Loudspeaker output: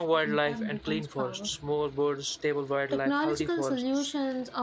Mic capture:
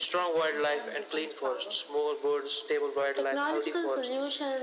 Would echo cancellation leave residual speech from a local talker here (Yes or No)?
No